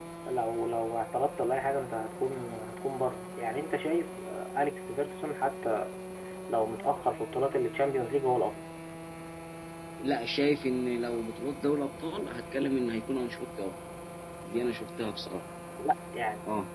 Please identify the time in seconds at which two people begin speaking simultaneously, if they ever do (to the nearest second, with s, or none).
none